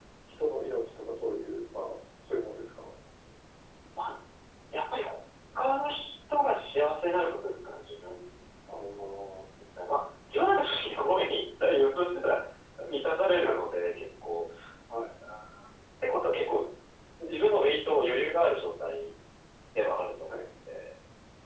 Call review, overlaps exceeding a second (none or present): none